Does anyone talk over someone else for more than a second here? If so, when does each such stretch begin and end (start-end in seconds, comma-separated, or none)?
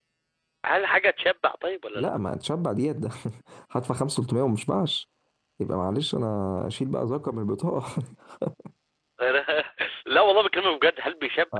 none